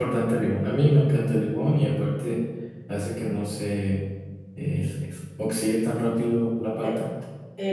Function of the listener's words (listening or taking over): taking over